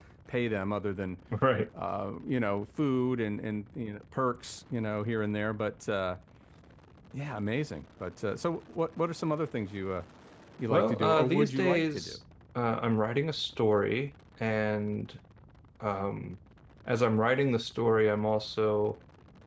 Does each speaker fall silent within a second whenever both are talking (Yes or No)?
No